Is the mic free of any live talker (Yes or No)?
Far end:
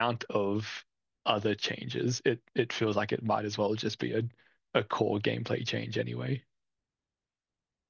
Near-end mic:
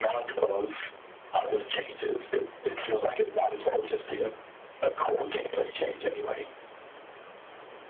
Yes